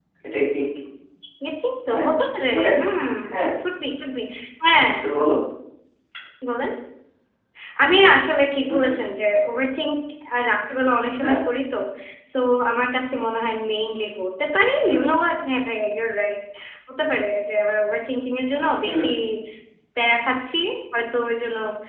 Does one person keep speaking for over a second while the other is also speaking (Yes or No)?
No